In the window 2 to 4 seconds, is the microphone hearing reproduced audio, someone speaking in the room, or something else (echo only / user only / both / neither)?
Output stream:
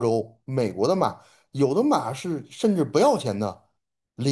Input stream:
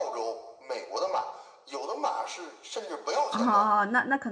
both